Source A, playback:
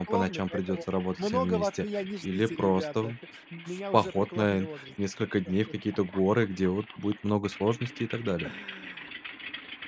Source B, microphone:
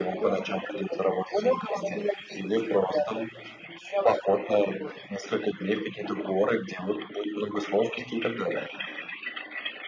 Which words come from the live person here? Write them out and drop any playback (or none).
none